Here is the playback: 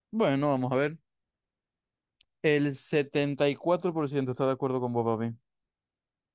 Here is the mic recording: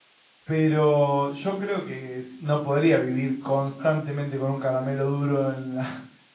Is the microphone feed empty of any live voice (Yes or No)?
No